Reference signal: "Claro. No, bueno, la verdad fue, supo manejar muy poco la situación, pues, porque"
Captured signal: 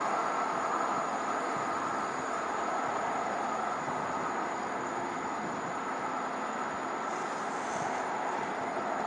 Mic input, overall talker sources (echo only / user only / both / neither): neither